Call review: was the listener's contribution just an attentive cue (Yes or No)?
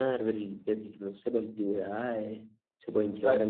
Yes